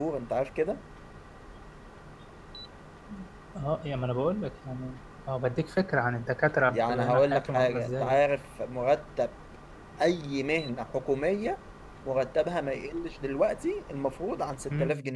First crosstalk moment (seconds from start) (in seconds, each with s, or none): 6.7 s